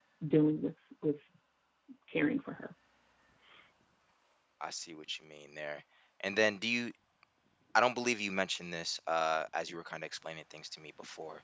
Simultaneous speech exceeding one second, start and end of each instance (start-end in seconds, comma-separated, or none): none